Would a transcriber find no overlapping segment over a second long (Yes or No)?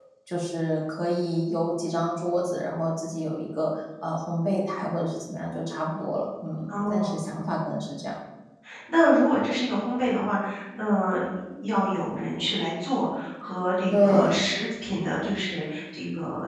Yes